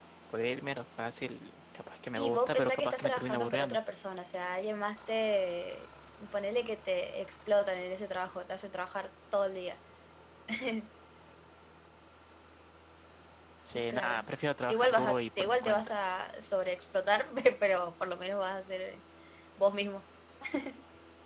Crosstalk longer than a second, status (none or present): present